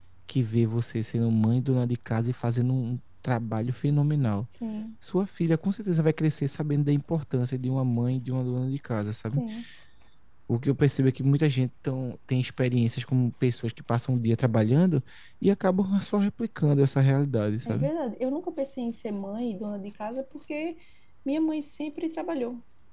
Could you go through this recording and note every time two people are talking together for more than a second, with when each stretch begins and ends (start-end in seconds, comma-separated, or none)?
none